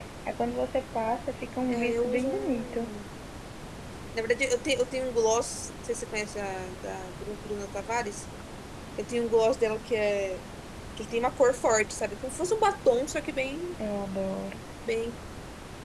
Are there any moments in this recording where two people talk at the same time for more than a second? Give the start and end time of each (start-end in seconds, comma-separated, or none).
1.7-2.9